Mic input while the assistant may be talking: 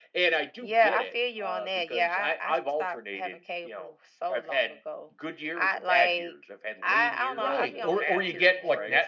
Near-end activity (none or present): present